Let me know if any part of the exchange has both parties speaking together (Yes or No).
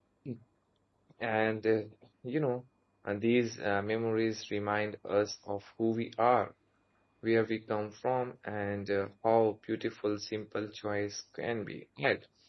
No